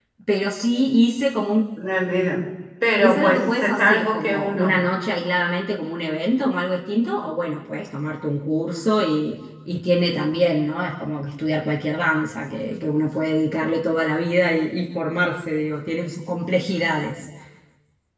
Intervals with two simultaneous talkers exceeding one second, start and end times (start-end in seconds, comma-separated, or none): 3.0-4.9